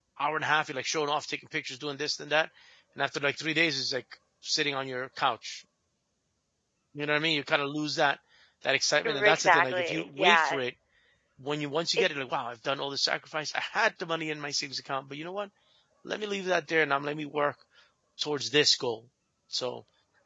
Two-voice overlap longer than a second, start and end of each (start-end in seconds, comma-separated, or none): 9.0-10.6